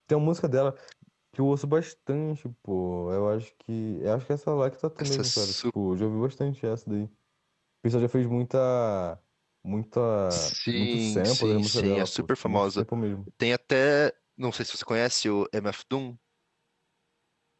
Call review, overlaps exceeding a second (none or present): present